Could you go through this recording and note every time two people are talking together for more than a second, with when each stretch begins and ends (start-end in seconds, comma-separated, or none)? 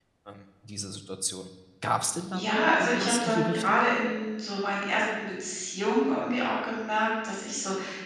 2.3-3.8